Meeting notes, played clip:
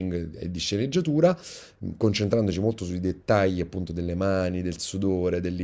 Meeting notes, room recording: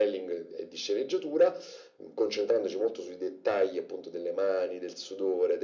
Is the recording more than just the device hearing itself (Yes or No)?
No